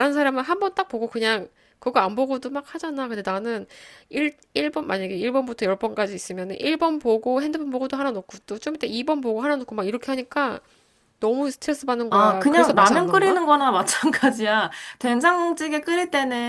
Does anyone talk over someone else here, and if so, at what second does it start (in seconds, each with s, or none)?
12.1 s